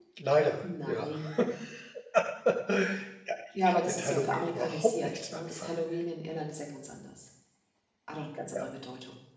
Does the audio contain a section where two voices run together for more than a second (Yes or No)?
Yes